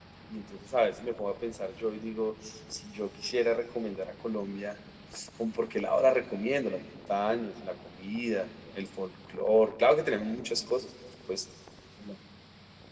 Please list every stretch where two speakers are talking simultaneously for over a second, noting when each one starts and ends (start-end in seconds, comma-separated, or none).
none